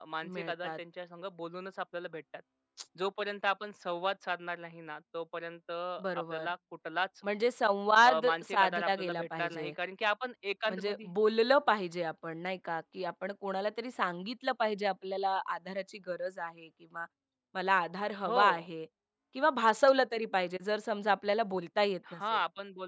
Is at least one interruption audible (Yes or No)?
Yes